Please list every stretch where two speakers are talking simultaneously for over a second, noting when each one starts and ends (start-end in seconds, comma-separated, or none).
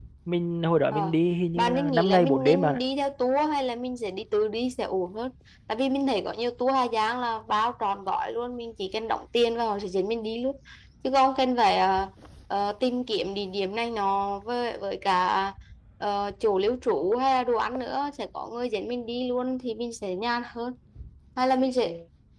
1.6-2.8